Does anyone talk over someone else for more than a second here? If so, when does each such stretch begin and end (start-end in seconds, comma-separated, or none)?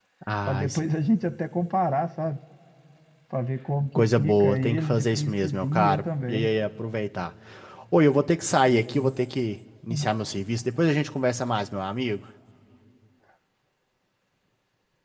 4.0-6.5